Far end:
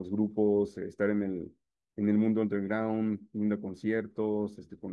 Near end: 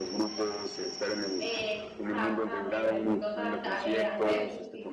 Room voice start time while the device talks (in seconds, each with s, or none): 1.4 s